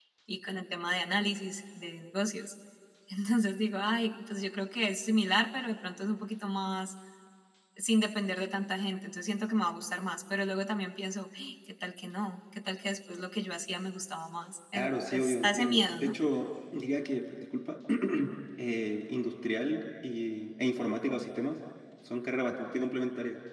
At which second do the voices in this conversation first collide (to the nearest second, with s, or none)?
15 s